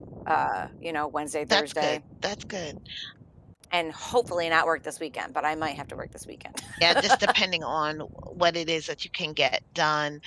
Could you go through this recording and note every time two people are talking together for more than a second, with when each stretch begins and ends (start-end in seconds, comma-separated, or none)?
none